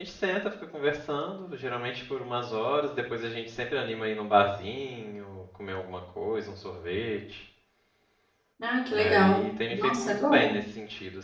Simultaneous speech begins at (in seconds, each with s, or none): 8.9 s